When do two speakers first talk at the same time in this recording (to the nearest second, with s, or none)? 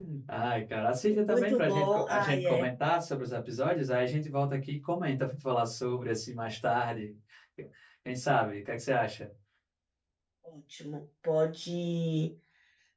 1 s